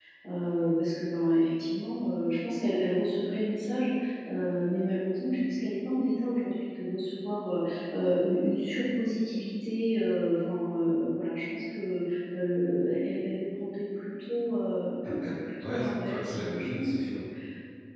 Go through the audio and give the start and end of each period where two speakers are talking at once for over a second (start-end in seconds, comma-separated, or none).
15.2-17.2